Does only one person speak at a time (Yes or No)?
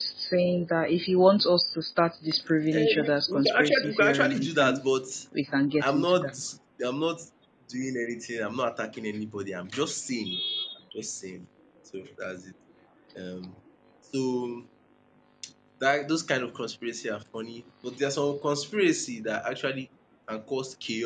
No